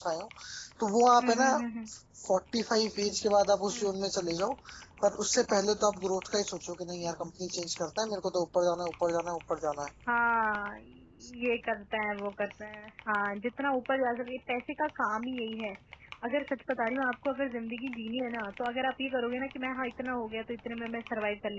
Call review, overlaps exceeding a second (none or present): none